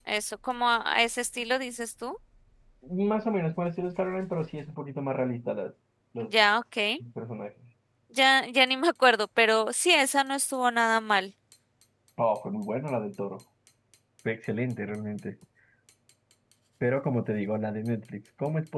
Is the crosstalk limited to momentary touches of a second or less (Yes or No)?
Yes